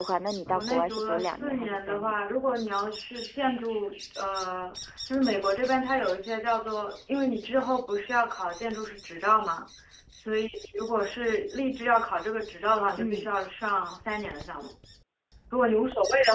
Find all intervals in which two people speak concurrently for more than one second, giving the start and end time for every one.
0.5-2.1

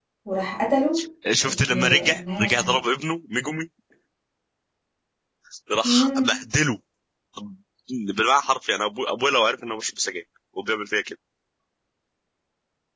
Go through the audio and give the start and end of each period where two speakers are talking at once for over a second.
1.4-2.8

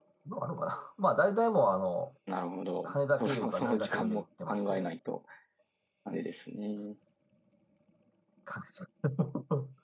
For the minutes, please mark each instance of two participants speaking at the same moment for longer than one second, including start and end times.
2.8-4.9

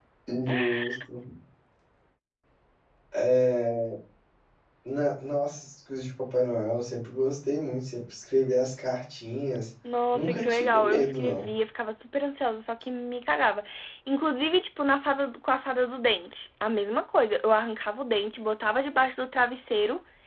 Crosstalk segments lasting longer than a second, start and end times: 10.1-11.5

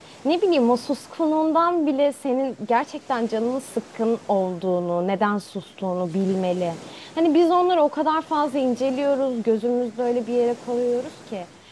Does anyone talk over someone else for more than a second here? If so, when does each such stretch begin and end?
none

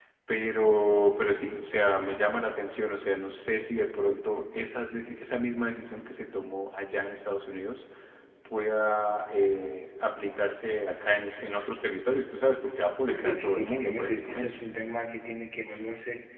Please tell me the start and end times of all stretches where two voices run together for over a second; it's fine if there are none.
13.1-14.5

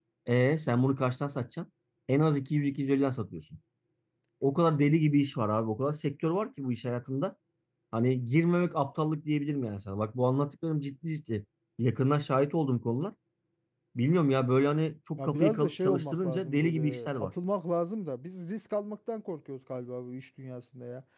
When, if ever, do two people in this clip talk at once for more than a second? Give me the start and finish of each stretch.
15.2-17.3

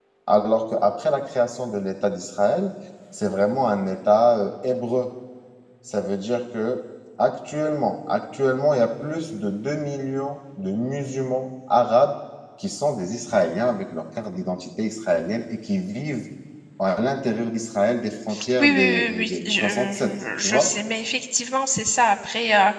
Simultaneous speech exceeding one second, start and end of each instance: 18.6-20.7

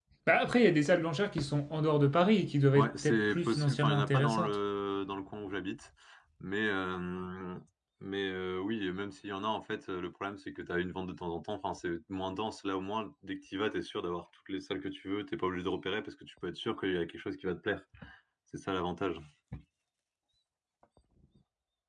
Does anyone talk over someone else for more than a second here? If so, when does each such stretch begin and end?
2.7-4.5

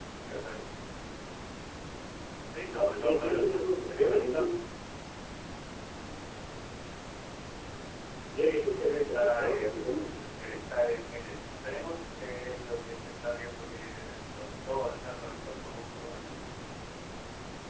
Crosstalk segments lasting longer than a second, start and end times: 3.0-4.5, 8.3-10.1

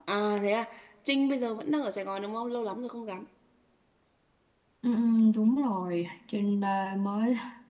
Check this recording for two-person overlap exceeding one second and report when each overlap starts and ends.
none

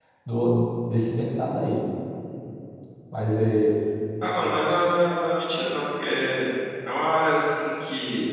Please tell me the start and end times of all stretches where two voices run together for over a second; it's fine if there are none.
none

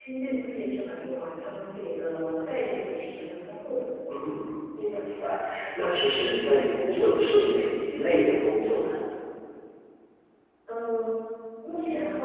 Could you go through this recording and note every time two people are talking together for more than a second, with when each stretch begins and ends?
none

